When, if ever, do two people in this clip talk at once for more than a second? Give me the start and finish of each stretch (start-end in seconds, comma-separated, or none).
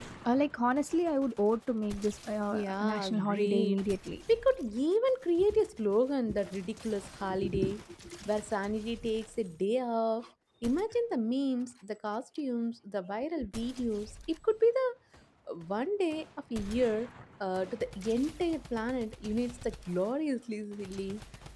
2.5-3.8